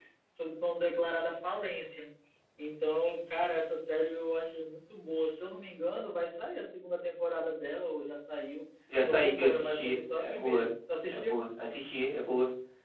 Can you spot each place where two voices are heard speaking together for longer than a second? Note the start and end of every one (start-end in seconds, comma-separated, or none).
9.1-10.7